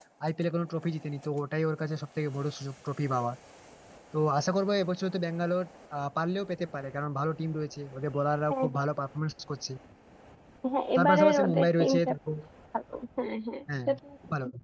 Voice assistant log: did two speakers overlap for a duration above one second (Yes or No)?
Yes